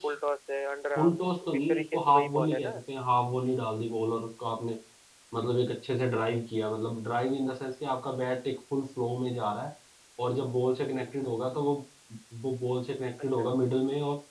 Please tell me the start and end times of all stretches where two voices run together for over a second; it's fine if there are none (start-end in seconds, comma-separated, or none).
1.0-2.8